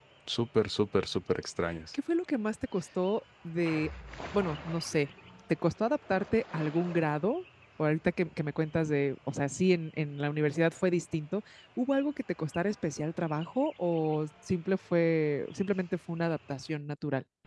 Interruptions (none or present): none